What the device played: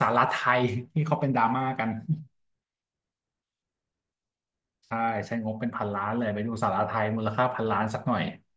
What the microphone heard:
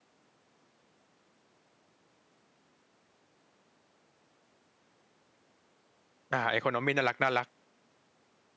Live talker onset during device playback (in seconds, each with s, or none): 6.3 s